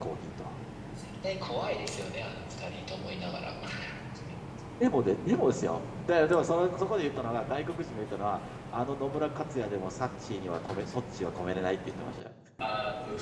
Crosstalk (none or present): none